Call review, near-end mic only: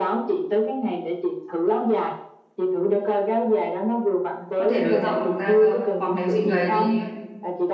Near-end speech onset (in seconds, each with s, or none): 4.5 s